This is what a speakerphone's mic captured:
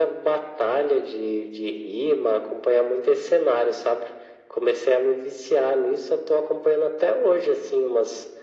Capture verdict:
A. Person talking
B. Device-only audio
B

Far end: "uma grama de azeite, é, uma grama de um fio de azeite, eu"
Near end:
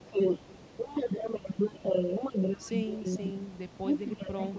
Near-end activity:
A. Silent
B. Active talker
B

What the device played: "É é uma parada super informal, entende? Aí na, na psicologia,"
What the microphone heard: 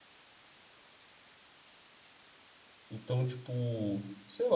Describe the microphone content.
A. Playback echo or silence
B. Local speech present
B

